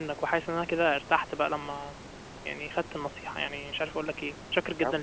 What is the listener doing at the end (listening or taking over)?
taking over